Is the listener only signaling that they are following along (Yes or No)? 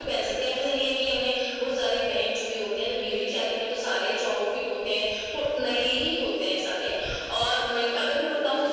Yes